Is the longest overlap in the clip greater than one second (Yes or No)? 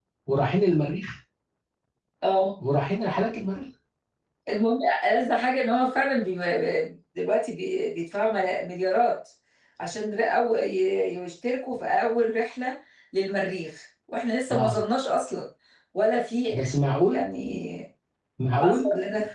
No